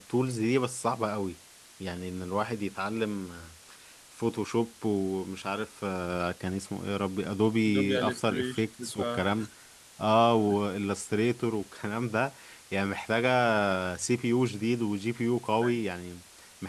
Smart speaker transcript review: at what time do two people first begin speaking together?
7.7 s

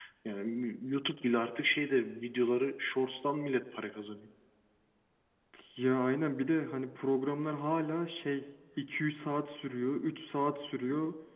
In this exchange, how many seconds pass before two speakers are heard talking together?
none

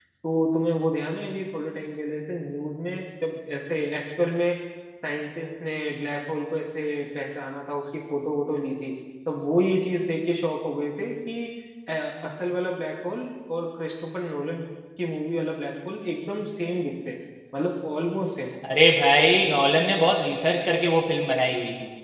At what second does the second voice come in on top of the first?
none

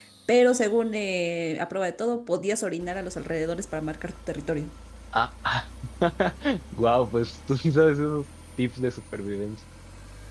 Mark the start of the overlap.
none

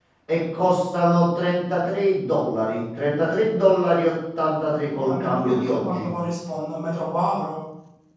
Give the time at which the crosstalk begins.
4.9 s

